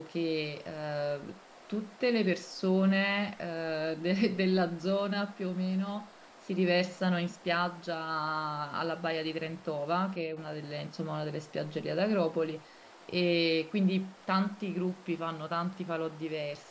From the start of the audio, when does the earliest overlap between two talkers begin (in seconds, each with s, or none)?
none